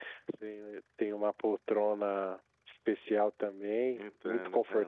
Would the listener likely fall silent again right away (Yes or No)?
Yes